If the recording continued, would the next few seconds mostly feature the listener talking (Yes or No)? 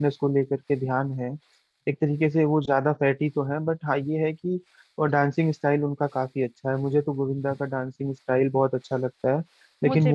No